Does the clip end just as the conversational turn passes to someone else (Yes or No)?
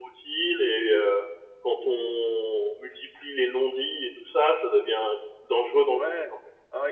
Yes